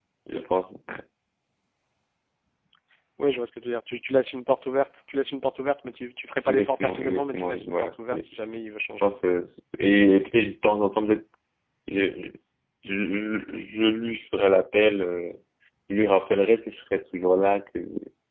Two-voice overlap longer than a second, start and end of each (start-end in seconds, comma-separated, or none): 6.5-8.3